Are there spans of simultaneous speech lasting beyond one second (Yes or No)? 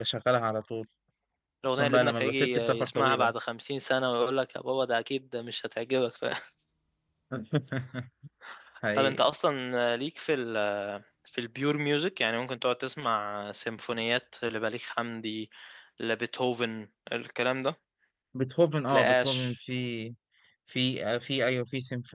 Yes